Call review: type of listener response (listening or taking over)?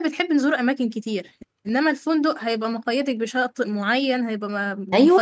taking over